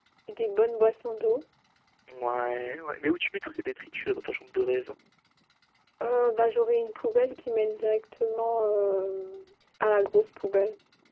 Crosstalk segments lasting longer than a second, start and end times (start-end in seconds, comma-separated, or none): none